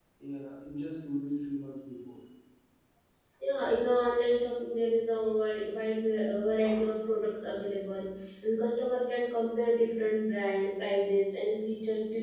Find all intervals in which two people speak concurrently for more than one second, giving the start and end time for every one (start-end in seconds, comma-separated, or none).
none